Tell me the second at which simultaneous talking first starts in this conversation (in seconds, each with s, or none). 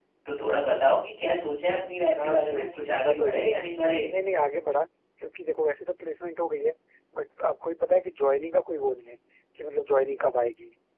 2.1 s